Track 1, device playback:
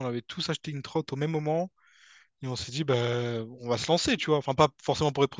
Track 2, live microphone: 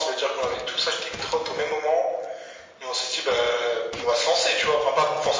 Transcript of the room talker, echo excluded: none

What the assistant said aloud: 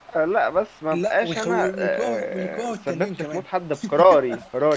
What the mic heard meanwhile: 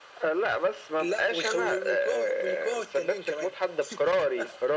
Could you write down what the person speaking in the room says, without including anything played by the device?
none

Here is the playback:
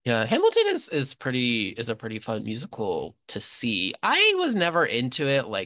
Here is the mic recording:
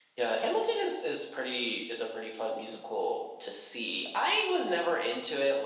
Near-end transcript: none

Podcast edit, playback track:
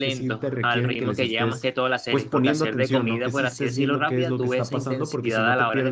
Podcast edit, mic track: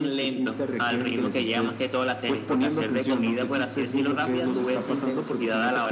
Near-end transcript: none

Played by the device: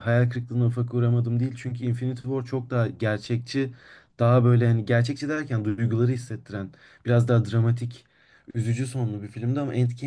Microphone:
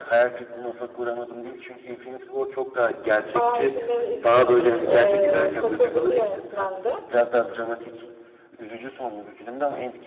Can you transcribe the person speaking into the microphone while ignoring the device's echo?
bayağı hani filmlerini izleyip e, takıldığım bir yönetmendi.

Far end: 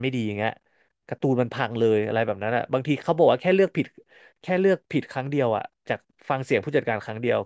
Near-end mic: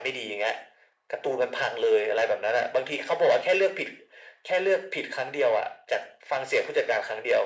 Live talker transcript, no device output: none

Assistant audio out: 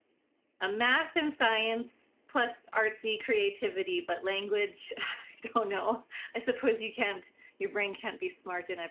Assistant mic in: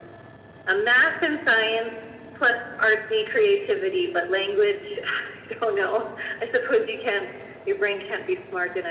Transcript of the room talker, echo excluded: none

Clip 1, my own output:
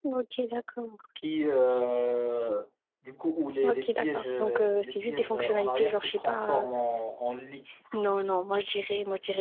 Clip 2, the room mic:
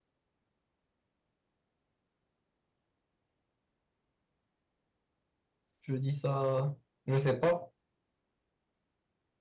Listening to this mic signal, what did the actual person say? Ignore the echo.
Je dis ça, je sais pas.

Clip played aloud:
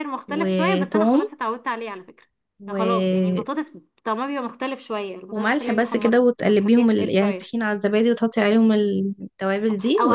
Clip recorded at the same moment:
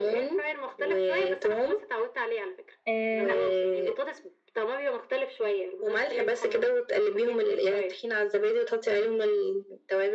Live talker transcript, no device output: آه لا

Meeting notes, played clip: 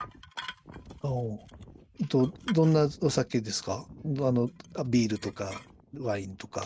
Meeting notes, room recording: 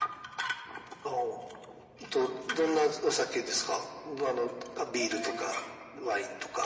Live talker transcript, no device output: ええ、

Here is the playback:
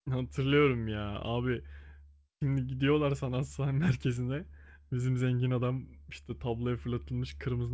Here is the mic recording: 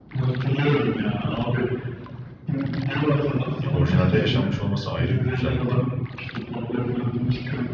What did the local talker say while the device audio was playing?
orijinalde yaşanmış olması ayrı bir güzellik.

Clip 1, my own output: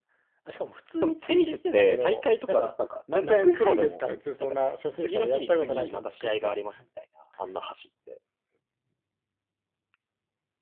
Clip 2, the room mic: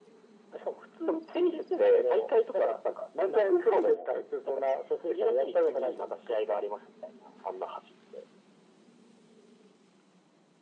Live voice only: none

